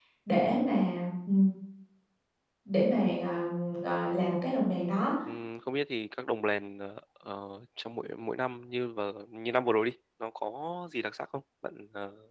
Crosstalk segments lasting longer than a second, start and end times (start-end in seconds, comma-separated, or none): none